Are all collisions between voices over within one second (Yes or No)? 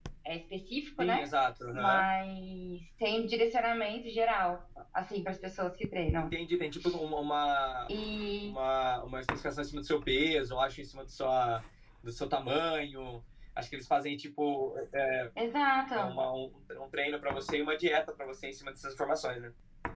Yes